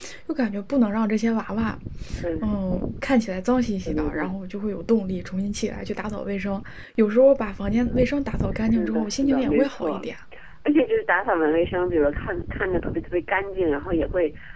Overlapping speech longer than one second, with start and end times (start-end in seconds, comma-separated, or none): 8.6-10.1